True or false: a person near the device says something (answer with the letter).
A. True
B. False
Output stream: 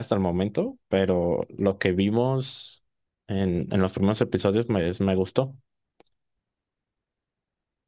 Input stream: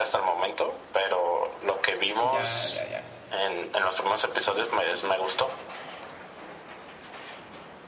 A